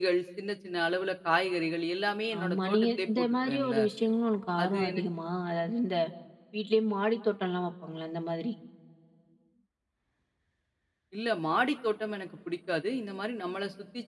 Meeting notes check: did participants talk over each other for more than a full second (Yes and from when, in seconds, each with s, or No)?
Yes, from 2.4 s